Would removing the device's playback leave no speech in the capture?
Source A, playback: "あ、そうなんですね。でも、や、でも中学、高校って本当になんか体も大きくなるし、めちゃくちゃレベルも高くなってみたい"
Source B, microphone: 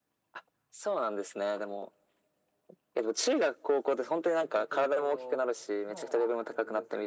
No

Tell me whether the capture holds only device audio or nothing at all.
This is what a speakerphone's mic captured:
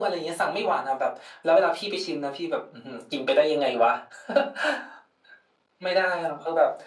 Yes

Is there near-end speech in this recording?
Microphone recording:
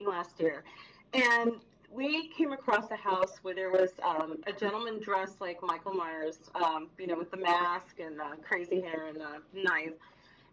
No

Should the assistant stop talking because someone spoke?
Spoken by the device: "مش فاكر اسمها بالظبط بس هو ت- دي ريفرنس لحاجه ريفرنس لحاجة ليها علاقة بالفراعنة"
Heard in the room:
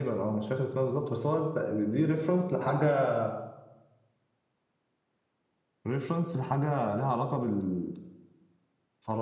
No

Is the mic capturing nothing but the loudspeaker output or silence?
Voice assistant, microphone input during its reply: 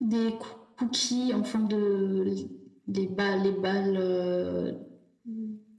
Yes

